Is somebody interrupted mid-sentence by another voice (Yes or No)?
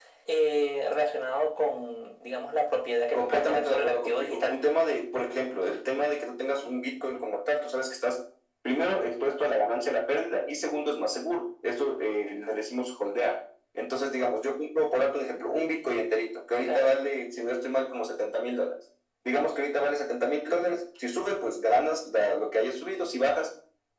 Yes